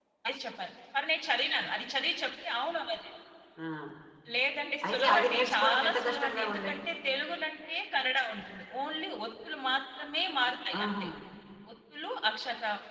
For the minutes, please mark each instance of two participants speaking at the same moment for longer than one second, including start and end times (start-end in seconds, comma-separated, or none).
4.9-6.7